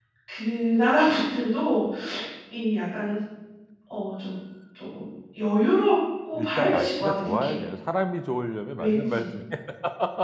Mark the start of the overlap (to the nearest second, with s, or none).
6 s